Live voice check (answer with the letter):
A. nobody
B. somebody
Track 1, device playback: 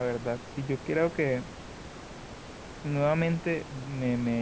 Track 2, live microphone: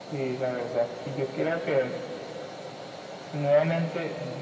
A